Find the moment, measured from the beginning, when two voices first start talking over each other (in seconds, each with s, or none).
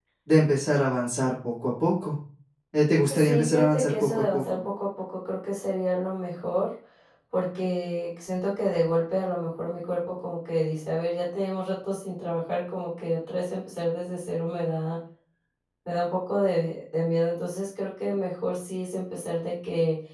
3.1 s